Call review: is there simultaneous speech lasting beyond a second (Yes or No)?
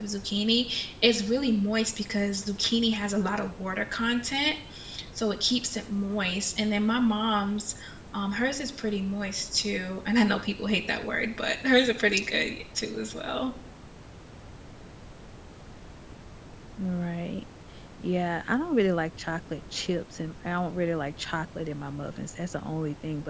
No